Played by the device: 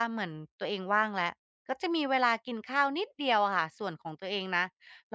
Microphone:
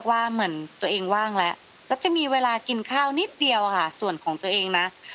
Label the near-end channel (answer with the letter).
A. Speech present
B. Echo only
B